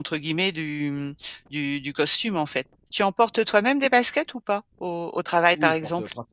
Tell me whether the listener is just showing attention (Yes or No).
No